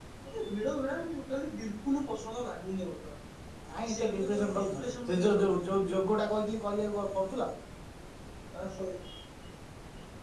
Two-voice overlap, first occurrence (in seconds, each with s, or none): 3.9 s